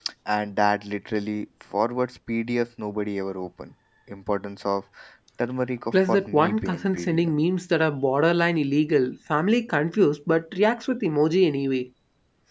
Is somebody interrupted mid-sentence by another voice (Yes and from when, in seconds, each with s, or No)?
Yes, from 5.9 s